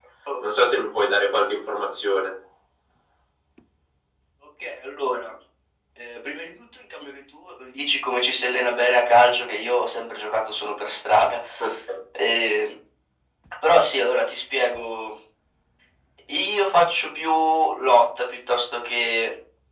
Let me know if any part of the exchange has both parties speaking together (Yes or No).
No